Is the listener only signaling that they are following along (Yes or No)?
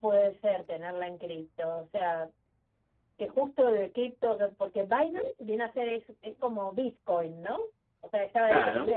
Yes